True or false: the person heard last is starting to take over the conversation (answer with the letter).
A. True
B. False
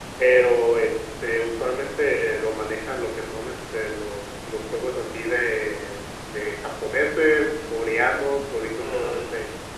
B